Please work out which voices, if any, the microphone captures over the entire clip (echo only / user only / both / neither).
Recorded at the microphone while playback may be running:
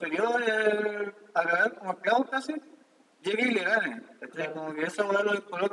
both